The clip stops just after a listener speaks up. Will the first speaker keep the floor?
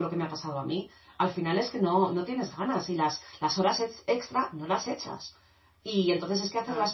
Yes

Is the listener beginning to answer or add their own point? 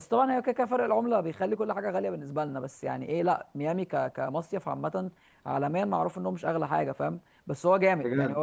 No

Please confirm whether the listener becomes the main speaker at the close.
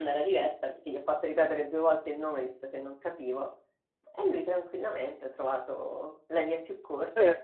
Yes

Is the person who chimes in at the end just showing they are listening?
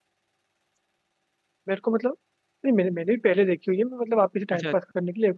Yes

